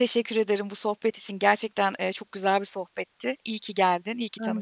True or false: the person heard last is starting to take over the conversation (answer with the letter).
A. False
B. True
B